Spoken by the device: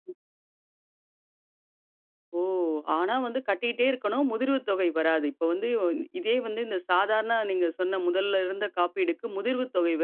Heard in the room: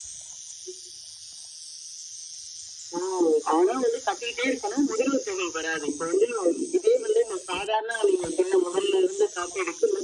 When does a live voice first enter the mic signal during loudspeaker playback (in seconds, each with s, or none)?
none